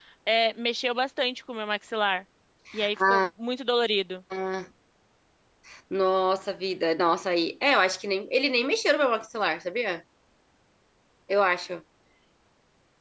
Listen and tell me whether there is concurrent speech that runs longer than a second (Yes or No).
No